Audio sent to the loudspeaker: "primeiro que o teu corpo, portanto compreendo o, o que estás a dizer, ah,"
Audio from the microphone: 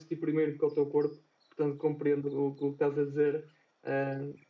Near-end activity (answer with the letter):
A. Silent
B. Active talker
A